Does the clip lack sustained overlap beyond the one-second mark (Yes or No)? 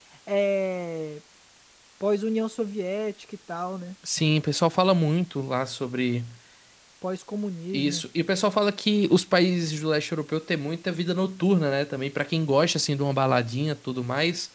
Yes